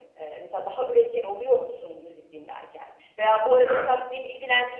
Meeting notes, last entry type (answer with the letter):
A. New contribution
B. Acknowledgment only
B